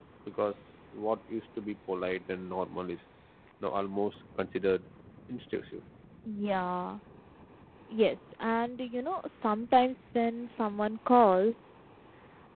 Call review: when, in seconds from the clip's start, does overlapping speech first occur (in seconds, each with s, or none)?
none